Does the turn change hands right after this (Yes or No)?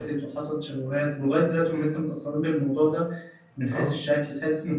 No